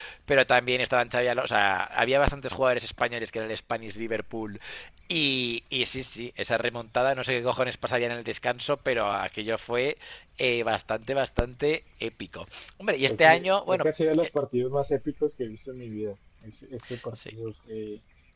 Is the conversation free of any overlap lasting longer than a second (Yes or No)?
No